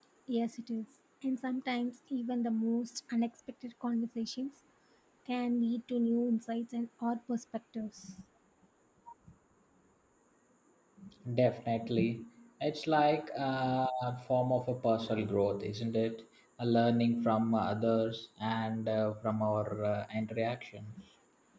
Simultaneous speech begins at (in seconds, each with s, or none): none